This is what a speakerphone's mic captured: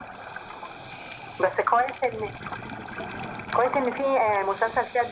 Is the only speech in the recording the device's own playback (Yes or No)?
Yes